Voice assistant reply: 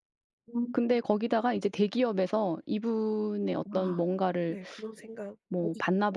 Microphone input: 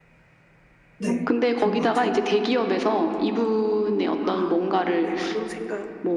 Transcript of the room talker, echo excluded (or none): 네. 그런 것 같아요.